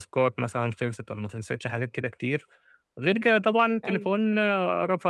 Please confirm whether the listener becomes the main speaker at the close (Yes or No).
No